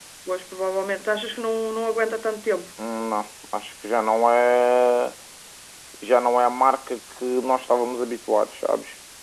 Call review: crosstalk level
none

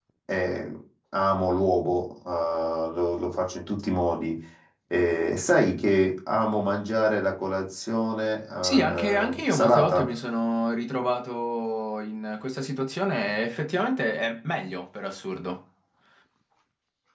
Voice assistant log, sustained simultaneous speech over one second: present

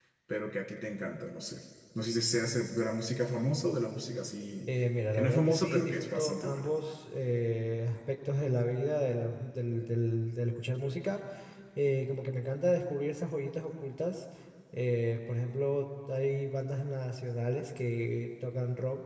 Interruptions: present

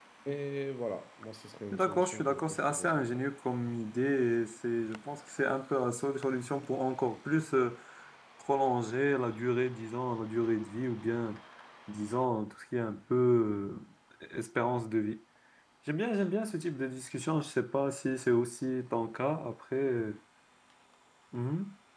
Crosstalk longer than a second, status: present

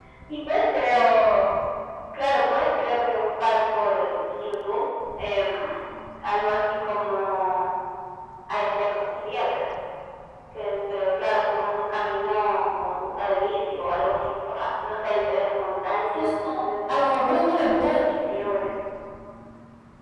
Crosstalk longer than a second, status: none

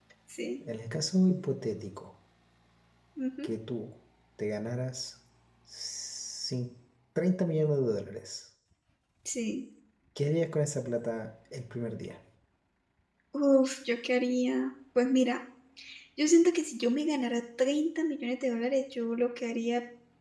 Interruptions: none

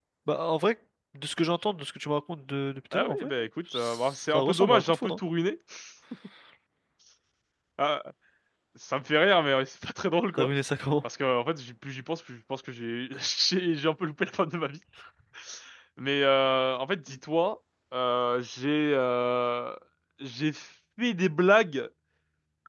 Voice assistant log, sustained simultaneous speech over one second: present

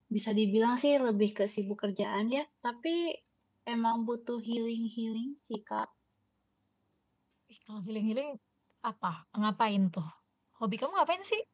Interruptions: none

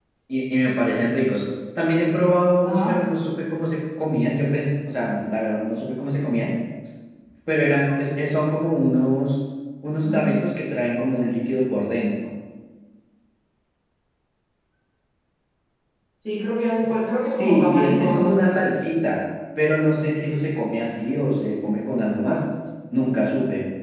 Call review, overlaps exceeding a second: present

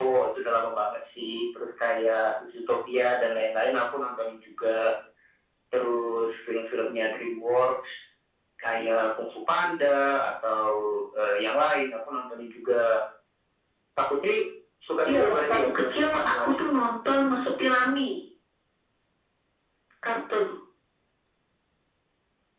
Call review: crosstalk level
present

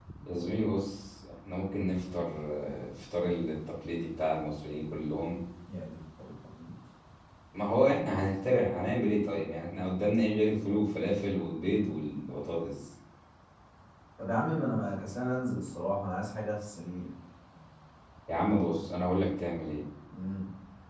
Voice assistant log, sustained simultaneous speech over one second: none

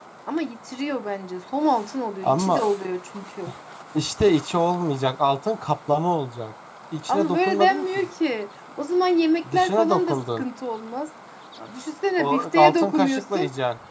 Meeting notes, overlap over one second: present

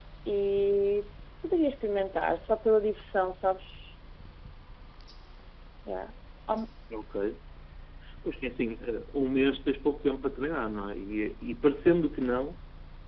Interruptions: none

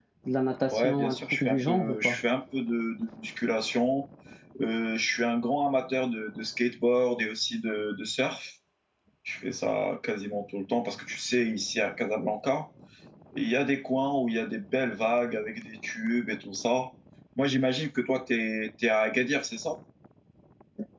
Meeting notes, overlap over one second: present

